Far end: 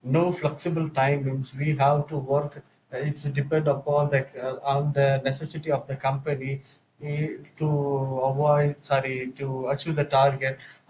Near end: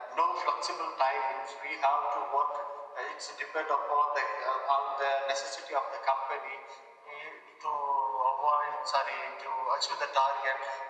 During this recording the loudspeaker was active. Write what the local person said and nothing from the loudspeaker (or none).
none